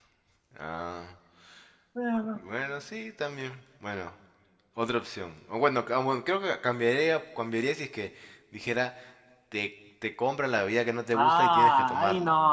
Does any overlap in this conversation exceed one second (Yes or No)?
Yes